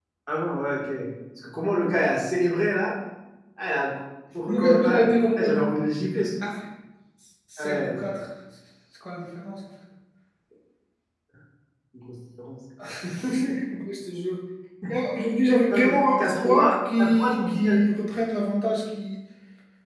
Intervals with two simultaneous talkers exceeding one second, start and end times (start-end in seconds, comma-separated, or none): 4.5-5.7, 15.7-17.8